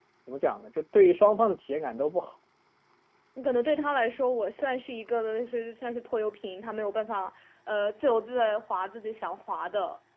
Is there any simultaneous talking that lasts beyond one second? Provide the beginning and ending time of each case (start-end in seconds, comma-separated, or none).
none